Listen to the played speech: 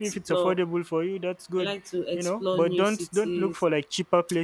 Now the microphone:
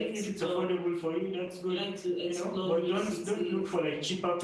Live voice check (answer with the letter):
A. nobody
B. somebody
A